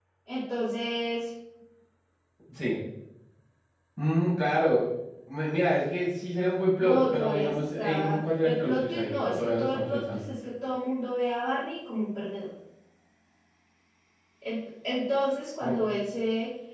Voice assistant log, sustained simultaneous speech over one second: present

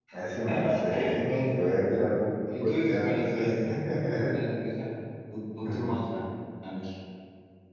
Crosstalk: present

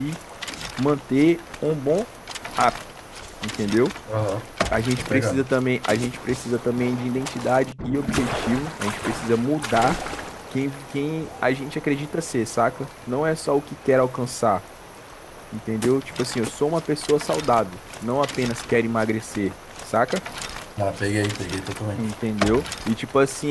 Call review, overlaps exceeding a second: none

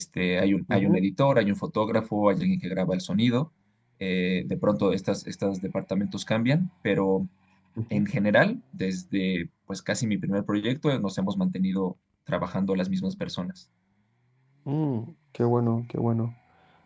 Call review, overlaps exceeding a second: none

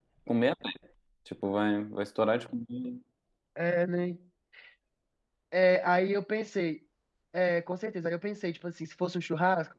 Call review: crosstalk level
none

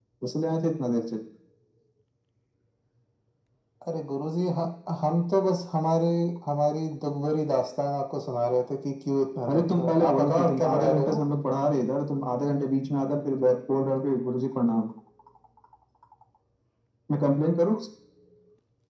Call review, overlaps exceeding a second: present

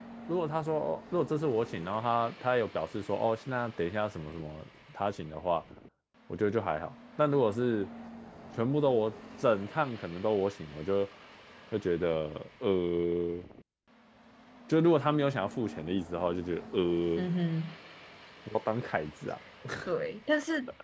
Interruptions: none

